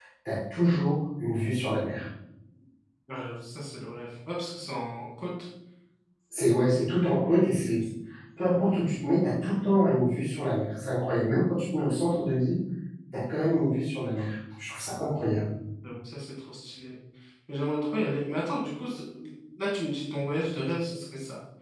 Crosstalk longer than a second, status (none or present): none